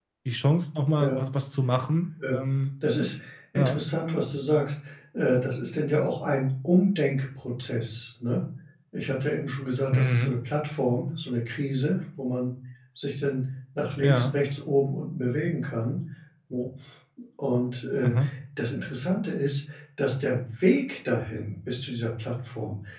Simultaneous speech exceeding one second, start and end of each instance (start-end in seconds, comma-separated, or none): none